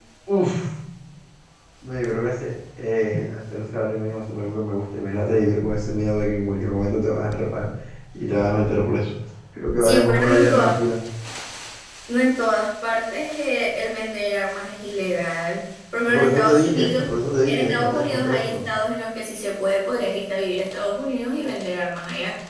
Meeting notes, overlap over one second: present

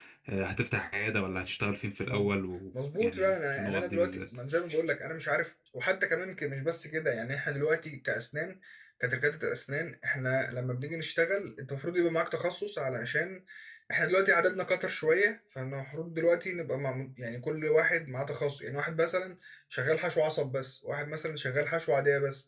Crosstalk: present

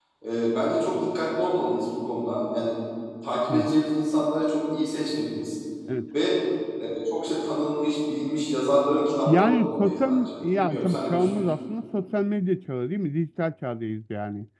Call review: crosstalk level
present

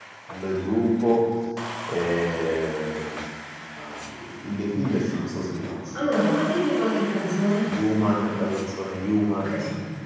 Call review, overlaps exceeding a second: none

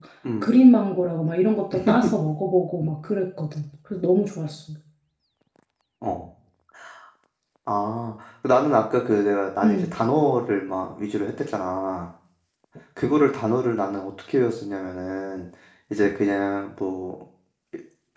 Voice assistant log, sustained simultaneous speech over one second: none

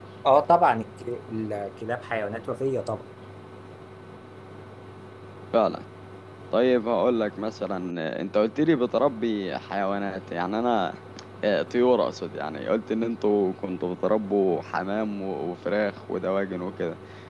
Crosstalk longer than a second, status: none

